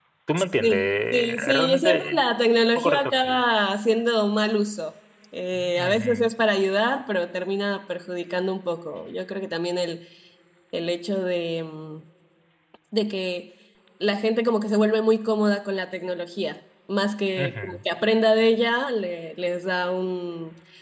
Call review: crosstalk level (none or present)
present